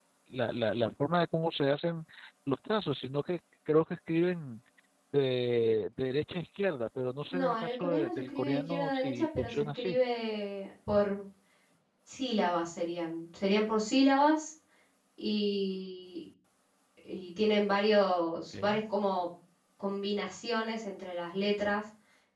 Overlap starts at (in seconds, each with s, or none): 7.3 s